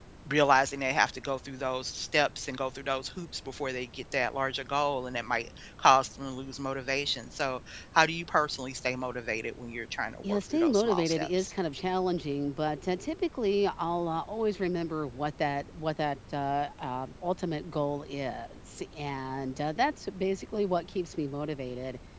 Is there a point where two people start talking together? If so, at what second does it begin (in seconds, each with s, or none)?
10.2 s